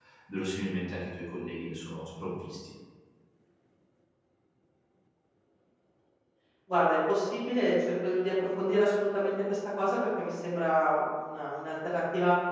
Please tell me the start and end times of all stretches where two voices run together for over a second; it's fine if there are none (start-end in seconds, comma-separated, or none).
none